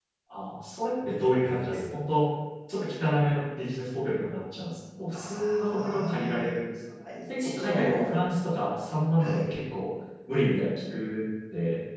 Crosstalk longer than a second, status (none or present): present